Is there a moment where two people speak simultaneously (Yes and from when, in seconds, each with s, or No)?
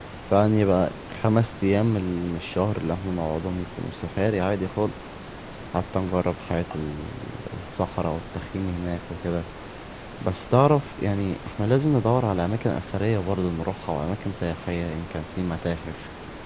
No